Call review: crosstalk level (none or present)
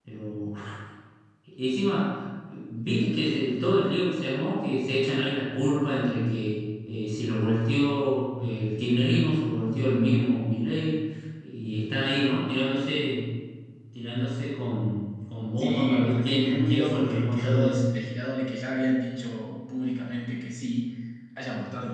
present